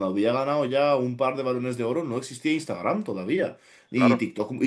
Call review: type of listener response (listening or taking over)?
listening